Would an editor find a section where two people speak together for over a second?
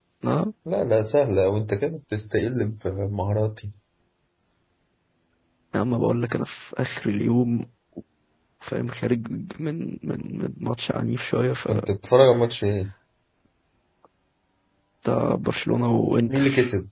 No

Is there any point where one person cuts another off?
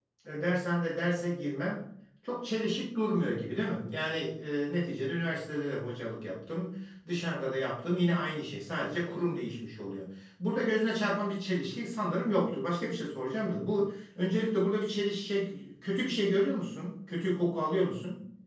No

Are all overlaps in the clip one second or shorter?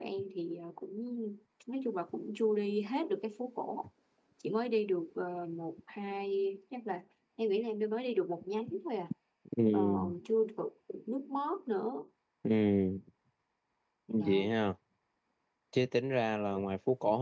Yes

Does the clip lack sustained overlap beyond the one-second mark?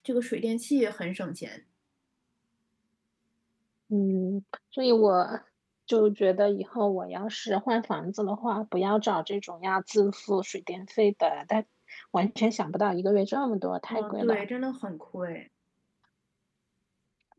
Yes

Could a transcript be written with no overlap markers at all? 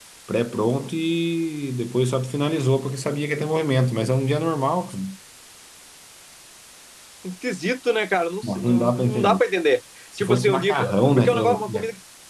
No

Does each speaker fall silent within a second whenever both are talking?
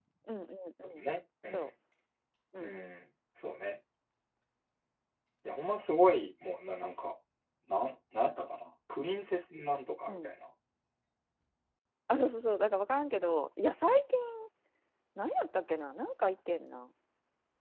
Yes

